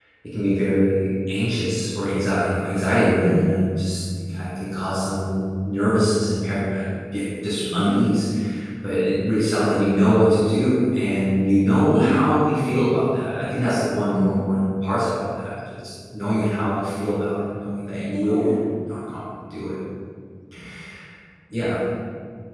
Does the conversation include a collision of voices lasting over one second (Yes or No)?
No